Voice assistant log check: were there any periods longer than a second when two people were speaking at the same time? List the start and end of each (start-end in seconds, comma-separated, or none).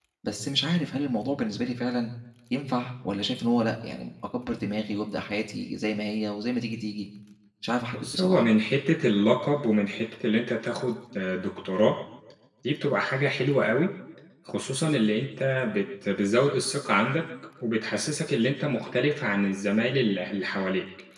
none